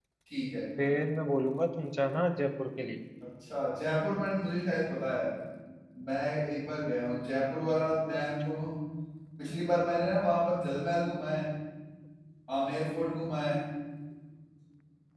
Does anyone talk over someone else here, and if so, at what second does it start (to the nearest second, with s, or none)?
none